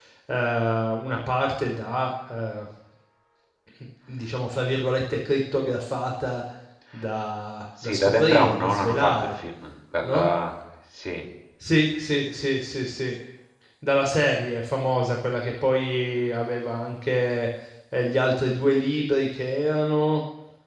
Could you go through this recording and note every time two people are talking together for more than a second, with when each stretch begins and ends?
7.8-9.1

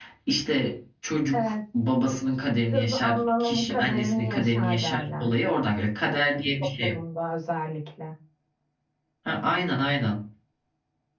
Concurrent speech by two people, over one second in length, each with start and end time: 2.7-5.3

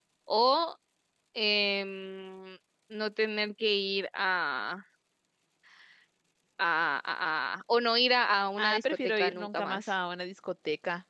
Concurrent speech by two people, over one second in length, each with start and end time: 8.6-9.9

